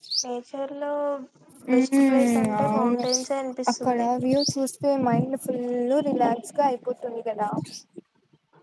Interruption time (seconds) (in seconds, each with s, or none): 1.8 s